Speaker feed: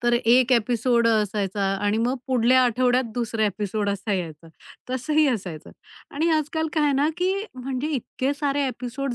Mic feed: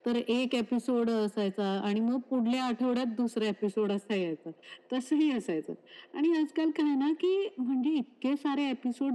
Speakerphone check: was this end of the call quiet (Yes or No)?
Yes